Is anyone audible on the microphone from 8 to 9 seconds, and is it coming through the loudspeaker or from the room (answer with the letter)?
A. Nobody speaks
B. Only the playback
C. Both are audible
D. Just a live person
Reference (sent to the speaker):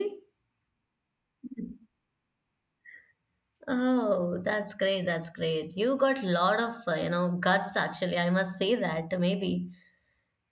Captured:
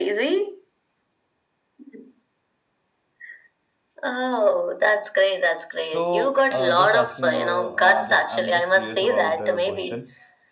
C